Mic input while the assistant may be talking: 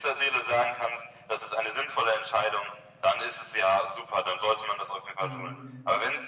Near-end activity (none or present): present